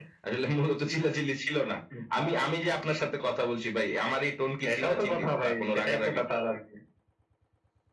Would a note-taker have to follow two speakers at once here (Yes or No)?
Yes